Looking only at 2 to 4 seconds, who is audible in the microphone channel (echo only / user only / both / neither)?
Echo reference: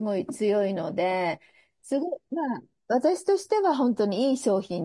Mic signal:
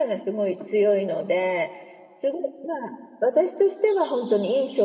echo only